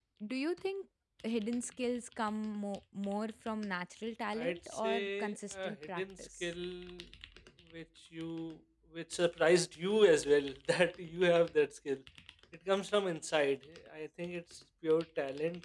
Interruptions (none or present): present